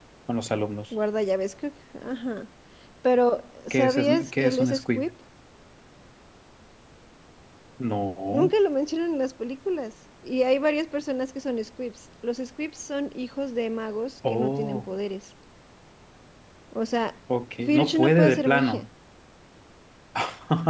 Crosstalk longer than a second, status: present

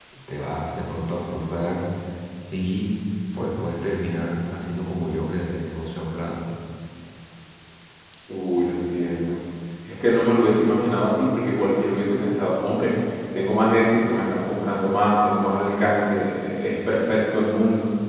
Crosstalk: none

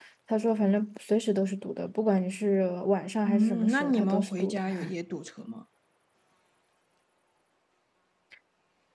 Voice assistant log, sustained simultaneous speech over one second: present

